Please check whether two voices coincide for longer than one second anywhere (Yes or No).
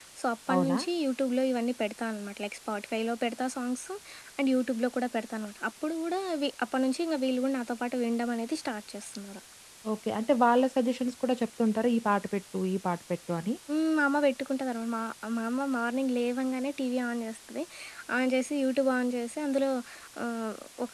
No